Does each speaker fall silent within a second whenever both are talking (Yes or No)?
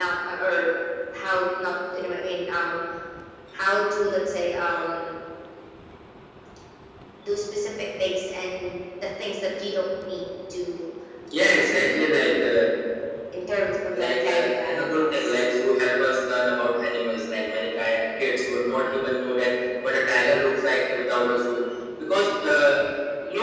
No